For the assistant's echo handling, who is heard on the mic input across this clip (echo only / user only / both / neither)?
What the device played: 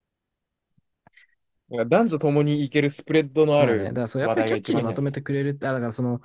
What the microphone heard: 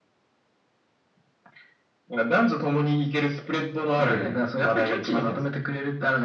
both